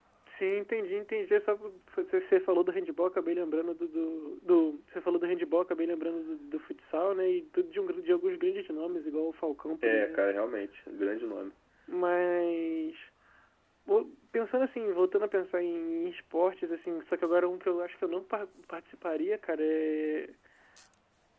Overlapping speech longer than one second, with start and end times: none

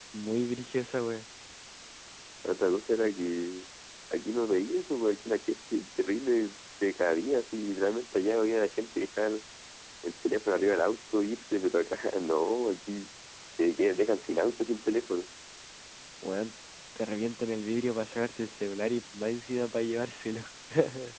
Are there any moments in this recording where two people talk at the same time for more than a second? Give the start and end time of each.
none

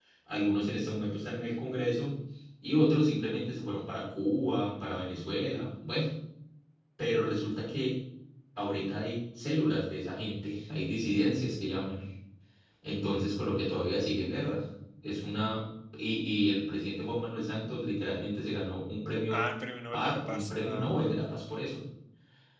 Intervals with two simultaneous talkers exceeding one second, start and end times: 19.9-21.4

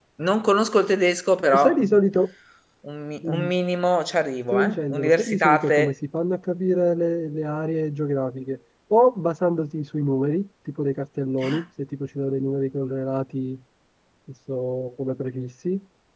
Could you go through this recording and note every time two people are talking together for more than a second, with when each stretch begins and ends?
4.5-5.9

